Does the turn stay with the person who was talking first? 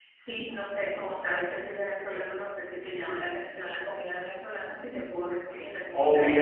No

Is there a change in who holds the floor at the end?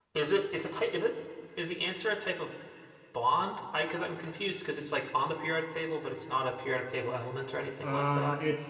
Yes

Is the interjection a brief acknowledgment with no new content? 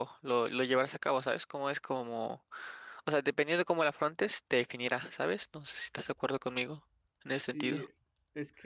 No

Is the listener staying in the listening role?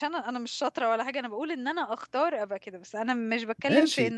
Yes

